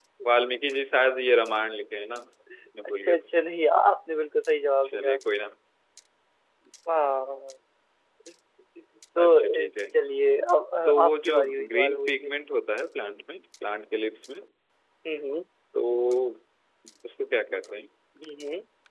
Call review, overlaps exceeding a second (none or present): present